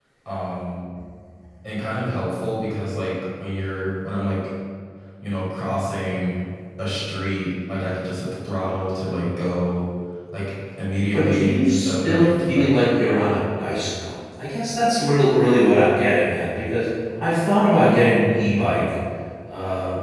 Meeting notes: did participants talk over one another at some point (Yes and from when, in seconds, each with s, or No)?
Yes, from 11.1 s